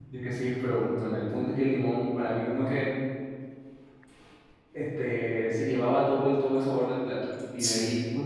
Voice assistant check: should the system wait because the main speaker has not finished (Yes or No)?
Yes